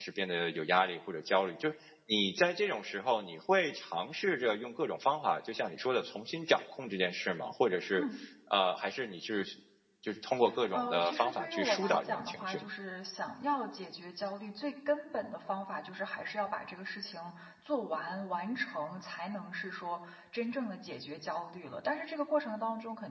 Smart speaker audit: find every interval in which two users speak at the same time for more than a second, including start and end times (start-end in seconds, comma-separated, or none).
10.7-12.6